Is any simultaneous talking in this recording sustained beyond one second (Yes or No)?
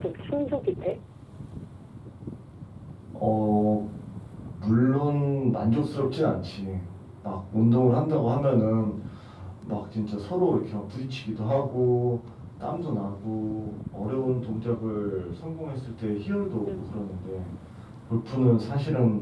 No